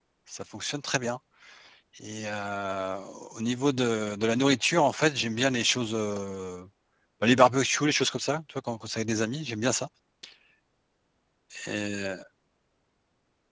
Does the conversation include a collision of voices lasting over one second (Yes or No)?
No